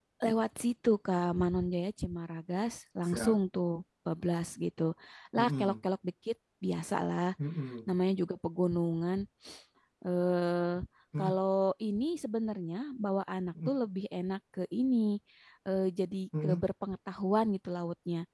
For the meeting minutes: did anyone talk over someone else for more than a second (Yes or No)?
No